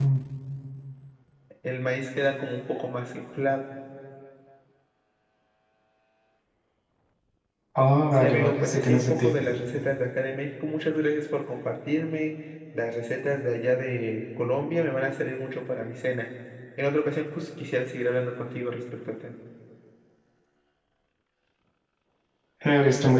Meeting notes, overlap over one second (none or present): present